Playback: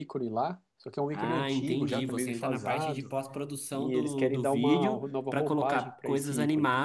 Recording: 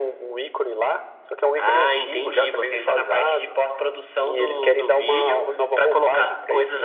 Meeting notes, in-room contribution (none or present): none